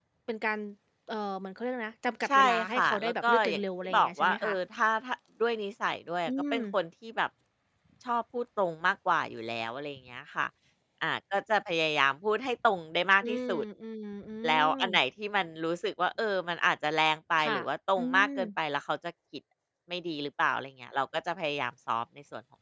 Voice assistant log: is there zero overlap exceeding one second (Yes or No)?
No